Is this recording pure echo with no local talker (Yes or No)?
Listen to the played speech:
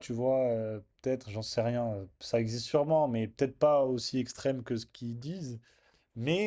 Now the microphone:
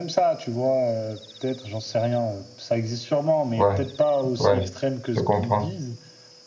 No